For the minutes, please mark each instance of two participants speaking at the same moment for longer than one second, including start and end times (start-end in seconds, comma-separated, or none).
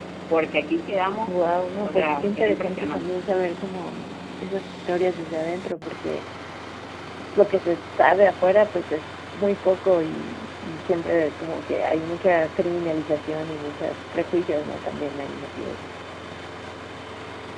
1.8-3.1